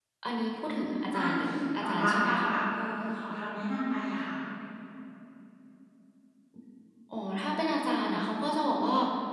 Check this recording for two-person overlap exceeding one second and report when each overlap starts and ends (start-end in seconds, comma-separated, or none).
1.1-2.5